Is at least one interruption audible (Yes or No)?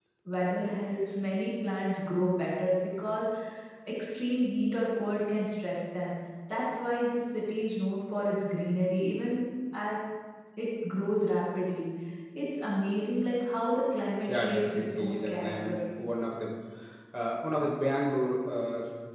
Yes